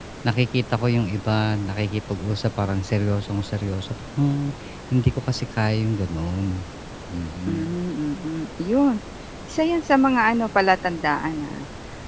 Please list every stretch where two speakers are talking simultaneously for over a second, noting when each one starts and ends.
none

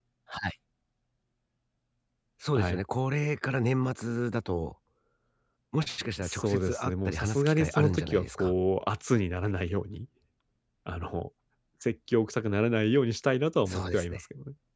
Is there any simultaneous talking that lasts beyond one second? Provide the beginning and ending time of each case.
6.2-8.5

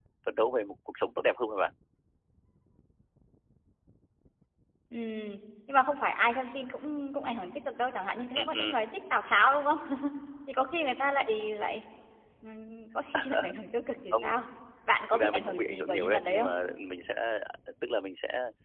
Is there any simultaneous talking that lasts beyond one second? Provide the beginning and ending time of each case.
15.1-16.5

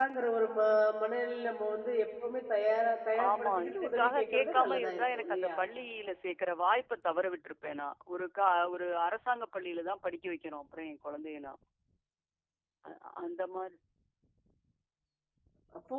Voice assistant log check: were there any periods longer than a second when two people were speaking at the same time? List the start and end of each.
3.3-5.5

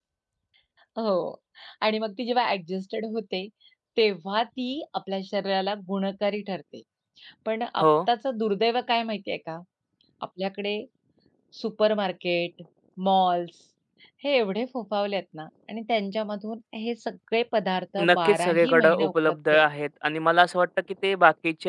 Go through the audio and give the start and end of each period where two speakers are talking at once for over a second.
18.0-19.6

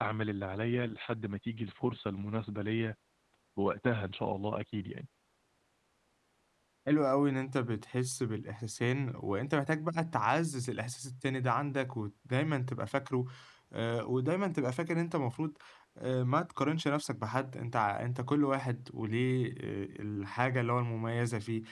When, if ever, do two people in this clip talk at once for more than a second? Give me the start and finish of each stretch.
none

